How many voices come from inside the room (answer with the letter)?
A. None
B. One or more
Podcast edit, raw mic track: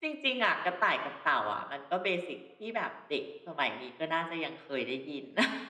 B